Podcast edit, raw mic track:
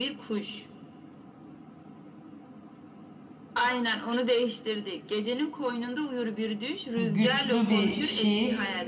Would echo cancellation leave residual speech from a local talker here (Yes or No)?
Yes